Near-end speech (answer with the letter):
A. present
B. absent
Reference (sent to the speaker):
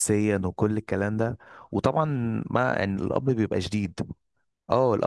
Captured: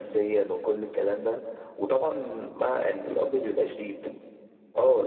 B